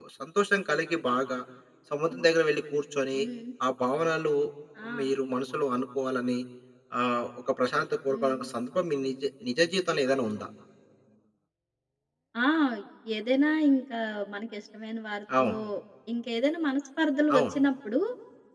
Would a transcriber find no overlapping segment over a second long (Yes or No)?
Yes